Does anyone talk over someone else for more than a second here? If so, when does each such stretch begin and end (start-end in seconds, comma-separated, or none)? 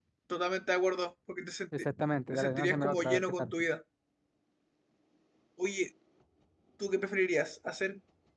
2.3-3.5